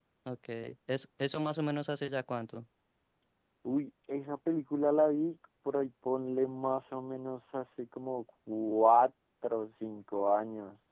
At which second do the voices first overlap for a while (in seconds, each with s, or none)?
none